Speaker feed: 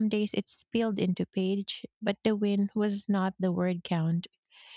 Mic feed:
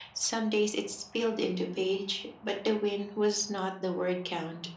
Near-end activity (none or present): none